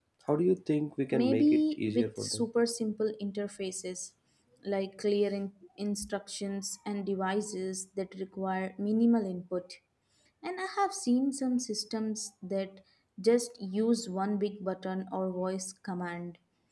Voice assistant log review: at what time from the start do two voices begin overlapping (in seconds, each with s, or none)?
1.1 s